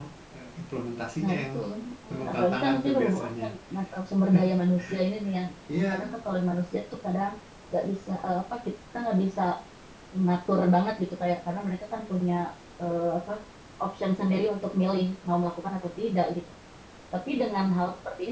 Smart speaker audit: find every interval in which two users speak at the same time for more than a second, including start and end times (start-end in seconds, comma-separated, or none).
2.1-3.4